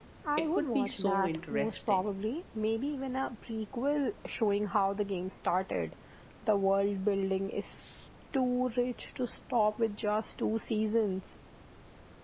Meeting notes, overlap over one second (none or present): present